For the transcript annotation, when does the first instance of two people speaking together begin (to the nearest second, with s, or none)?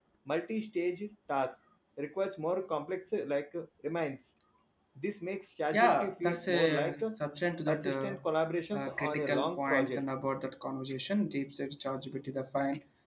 6 s